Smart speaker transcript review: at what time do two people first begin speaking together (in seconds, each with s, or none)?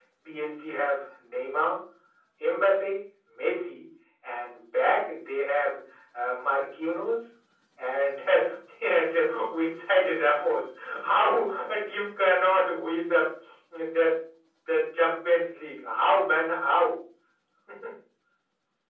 none